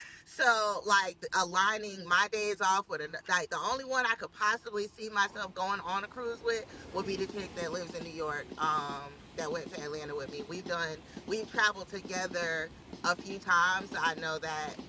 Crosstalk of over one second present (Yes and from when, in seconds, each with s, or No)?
No